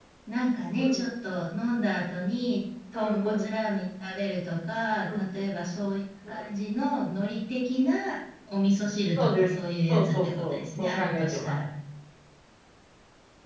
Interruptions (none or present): present